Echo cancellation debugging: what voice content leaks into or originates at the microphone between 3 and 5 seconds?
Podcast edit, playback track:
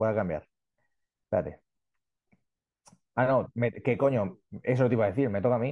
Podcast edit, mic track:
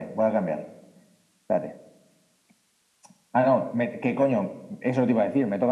echo only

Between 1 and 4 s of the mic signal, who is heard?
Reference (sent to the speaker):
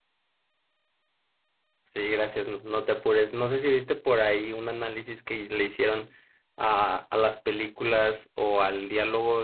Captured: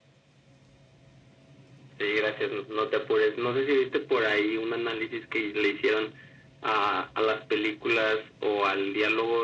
echo only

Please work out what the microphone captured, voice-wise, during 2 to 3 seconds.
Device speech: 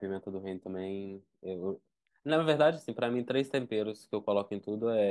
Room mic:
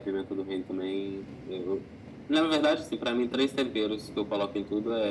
echo only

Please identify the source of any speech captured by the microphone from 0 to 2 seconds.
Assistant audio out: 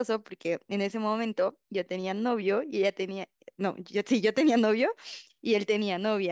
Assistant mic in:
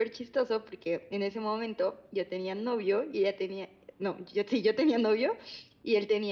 echo only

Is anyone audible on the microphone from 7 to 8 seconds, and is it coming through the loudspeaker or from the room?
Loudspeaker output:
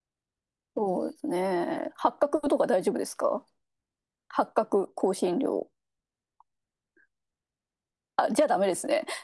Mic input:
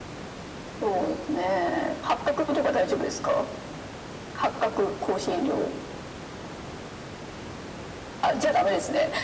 neither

